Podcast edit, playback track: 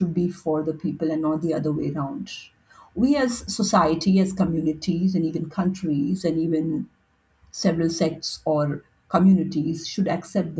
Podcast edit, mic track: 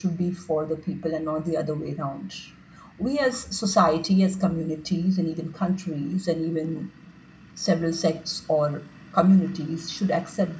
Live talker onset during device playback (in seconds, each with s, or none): none